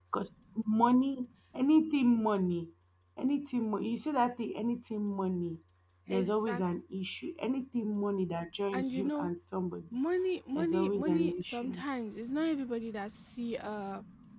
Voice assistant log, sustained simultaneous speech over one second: present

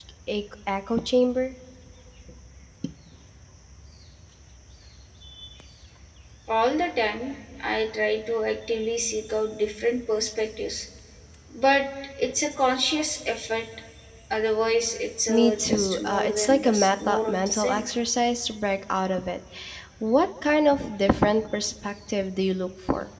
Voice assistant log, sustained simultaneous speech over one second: present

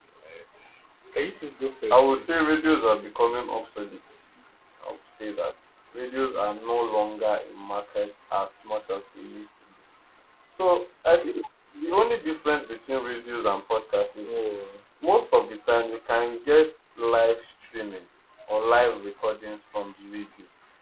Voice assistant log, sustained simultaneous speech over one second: present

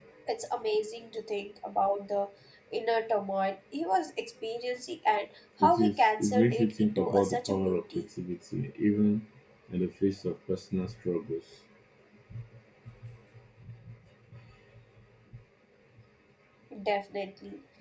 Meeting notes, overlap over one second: present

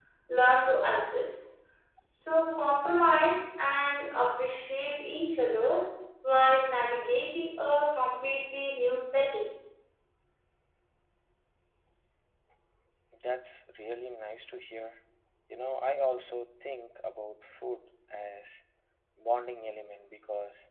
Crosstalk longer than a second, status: none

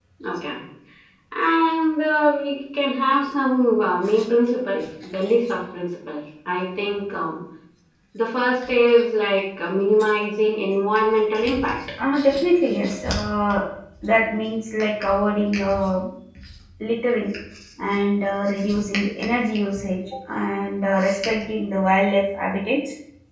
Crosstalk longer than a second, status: none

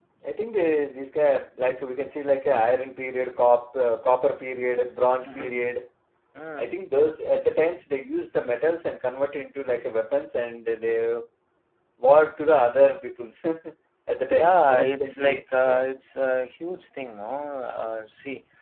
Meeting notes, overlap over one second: present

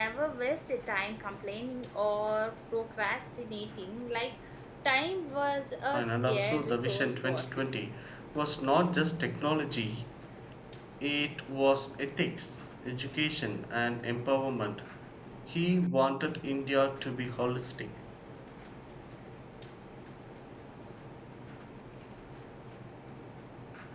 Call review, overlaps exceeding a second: present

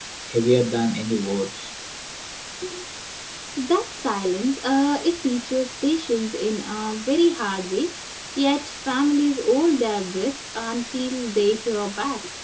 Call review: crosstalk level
none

